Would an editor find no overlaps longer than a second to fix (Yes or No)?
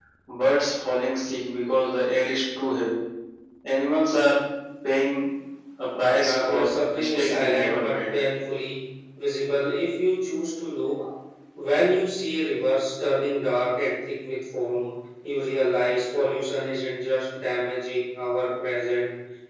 No